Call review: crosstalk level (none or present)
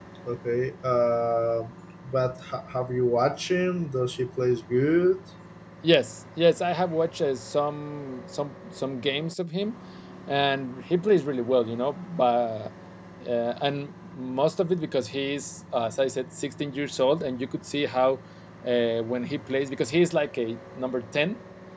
none